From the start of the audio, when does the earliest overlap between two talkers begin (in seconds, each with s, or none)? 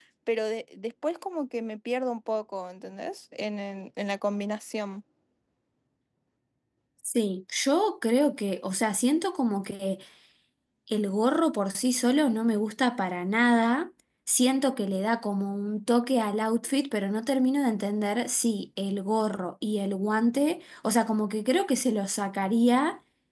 none